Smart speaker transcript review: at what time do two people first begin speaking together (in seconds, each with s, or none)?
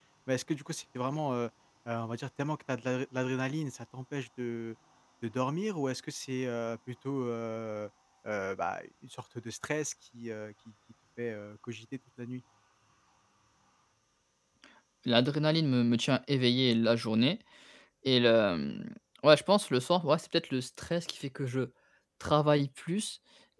none